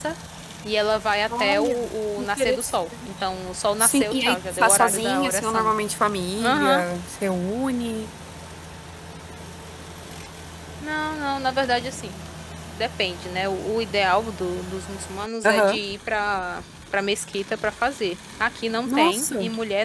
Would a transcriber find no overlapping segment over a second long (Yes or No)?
No